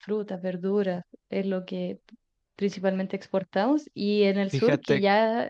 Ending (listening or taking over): listening